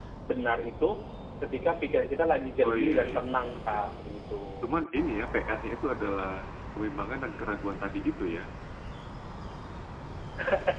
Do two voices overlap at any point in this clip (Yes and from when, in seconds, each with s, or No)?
Yes, from 2.6 s